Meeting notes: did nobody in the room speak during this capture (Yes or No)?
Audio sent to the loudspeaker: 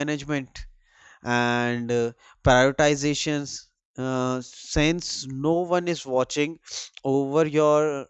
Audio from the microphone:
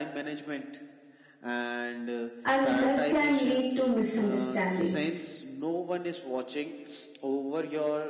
No